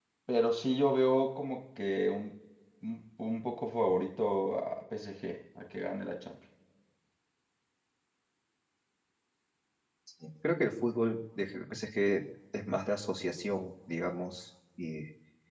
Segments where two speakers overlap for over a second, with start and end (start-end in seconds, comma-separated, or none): none